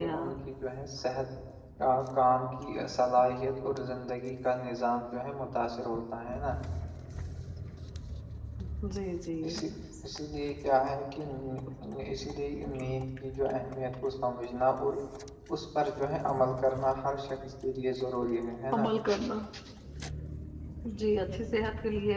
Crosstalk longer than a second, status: none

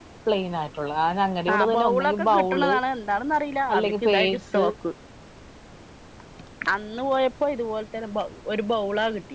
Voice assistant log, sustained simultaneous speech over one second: present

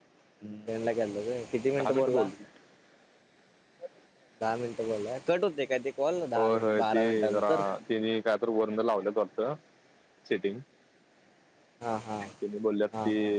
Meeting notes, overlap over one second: present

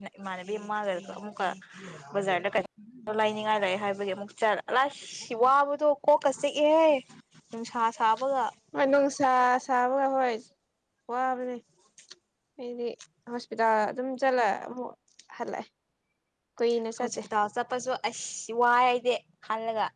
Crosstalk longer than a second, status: none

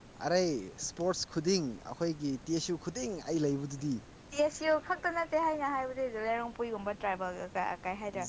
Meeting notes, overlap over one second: none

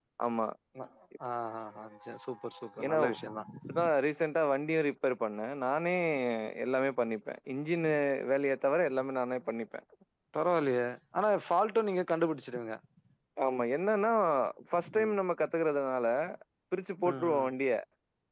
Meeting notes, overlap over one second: none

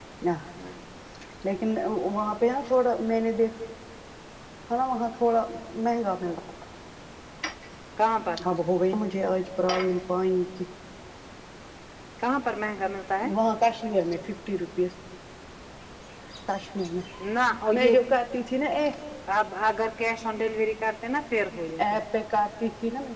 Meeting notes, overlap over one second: none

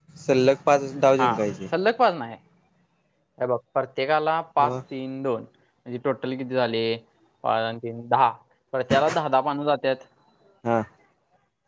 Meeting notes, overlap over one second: none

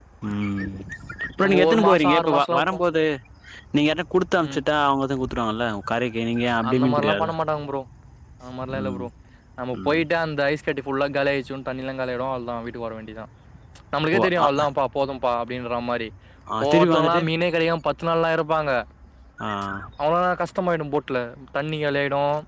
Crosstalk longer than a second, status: present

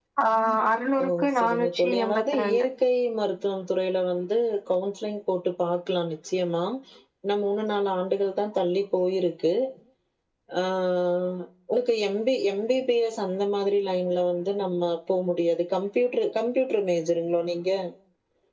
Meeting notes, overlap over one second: present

